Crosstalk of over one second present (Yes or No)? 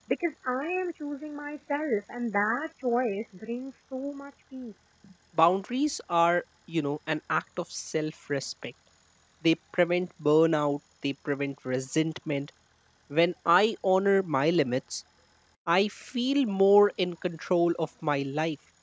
No